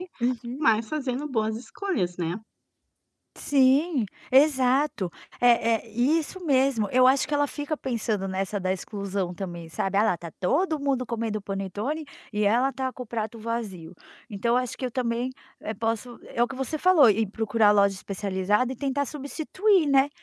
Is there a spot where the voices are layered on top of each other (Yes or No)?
No